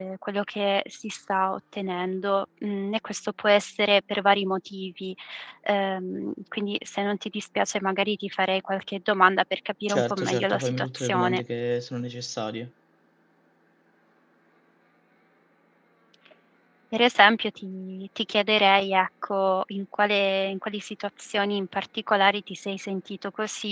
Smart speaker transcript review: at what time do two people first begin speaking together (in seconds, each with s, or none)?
9.9 s